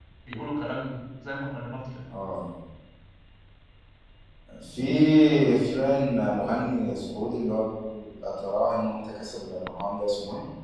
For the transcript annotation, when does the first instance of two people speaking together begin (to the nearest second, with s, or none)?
none